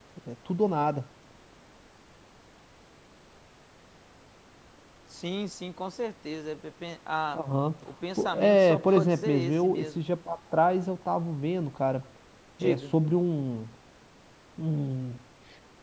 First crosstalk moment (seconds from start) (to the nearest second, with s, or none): 8 s